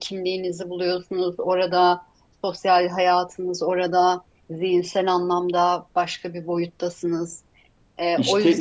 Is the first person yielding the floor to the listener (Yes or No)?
Yes